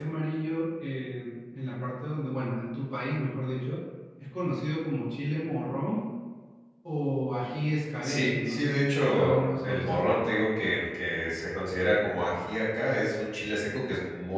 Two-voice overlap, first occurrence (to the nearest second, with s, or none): 8 s